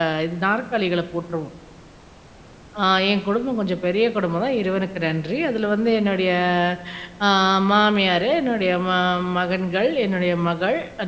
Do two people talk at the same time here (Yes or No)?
No